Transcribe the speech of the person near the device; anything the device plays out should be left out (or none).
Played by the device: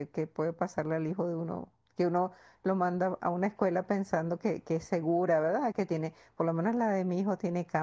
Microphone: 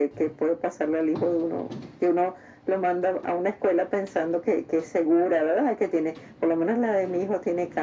none